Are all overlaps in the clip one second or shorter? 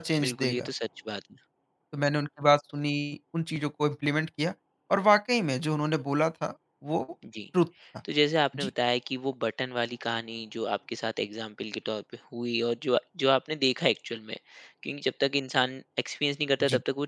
Yes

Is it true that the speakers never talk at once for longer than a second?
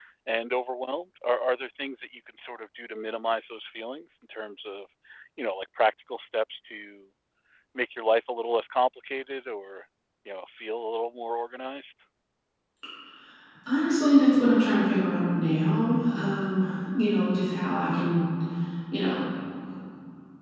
Yes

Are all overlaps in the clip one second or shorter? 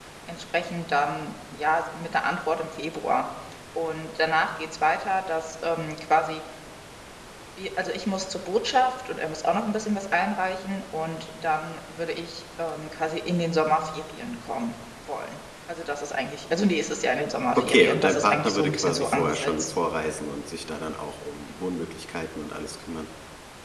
No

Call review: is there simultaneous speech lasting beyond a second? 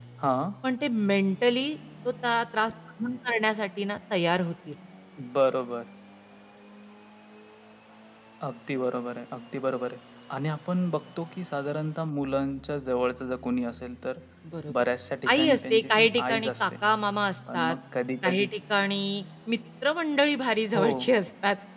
Yes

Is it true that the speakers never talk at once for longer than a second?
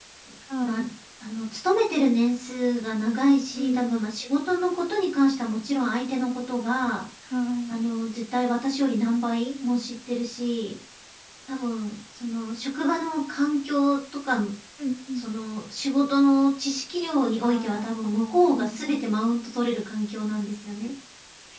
No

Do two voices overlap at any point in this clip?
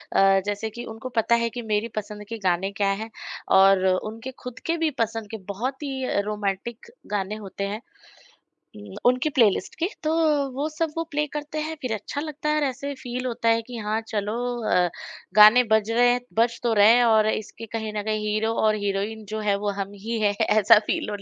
No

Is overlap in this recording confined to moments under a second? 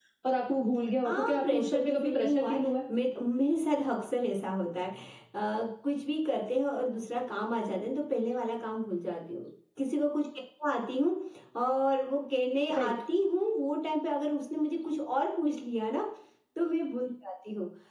No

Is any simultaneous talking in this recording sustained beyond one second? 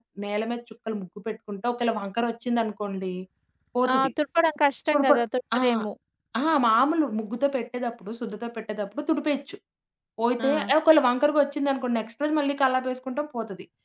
No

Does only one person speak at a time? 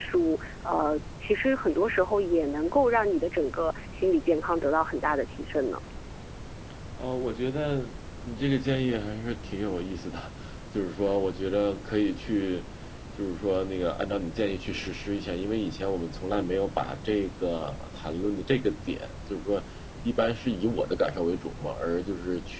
Yes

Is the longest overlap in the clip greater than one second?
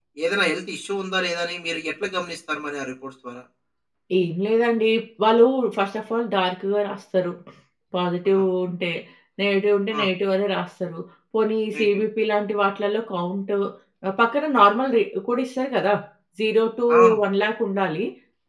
No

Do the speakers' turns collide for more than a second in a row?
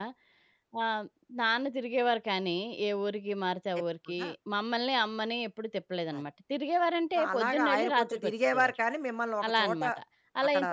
Yes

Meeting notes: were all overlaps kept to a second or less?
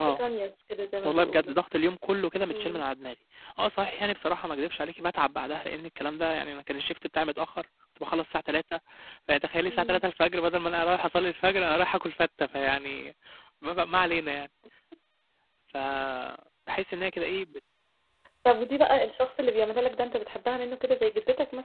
Yes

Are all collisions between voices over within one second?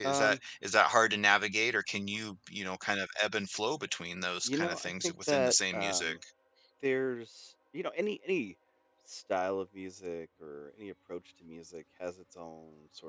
No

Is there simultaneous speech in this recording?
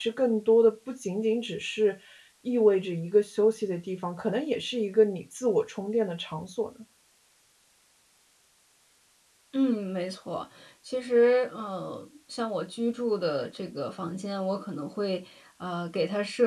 No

